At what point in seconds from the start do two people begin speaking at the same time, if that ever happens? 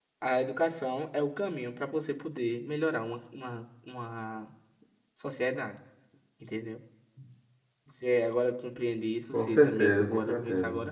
9.3 s

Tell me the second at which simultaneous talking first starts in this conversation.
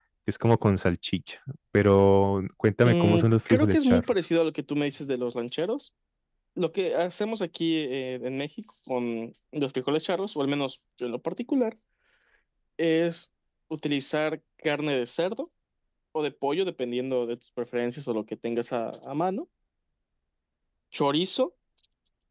2.8 s

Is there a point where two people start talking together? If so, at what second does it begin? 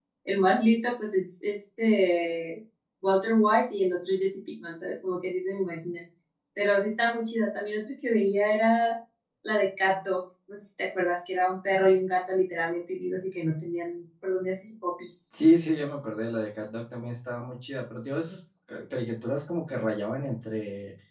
none

